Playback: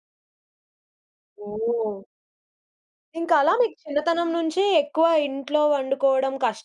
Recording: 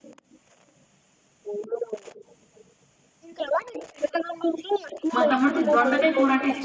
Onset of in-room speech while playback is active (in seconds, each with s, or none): 5.1 s